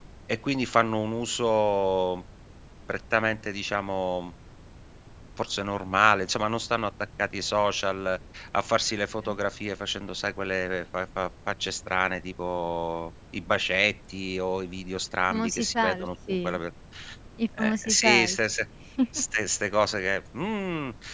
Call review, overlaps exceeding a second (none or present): present